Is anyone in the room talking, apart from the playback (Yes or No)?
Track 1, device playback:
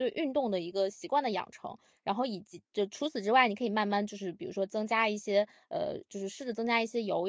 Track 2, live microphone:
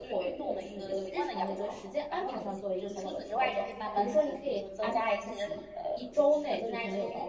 Yes